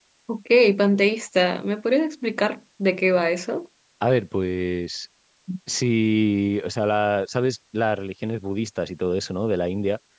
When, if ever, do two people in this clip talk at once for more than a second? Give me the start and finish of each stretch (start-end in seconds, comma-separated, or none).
none